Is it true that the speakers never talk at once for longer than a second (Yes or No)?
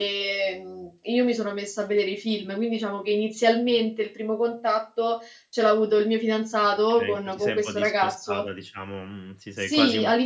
No